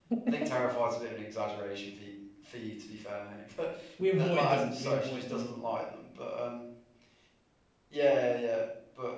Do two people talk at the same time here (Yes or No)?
Yes